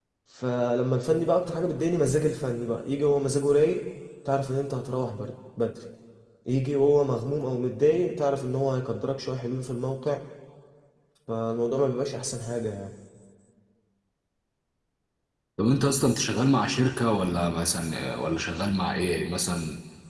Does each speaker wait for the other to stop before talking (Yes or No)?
Yes